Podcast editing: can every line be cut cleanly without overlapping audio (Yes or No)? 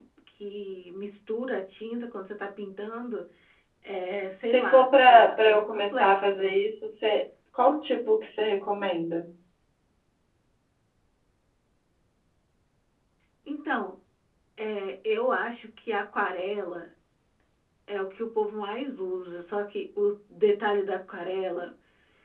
No